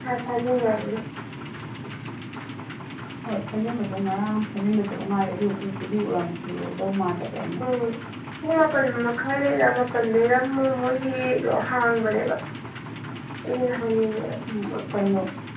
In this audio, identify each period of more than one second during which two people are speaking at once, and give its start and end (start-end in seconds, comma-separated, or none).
none